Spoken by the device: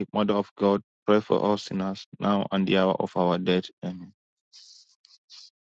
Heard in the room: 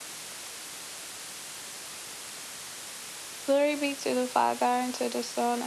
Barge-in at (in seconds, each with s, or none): 3.5 s